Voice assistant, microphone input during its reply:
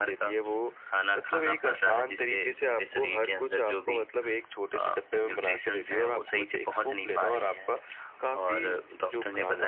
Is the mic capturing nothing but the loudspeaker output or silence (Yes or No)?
Yes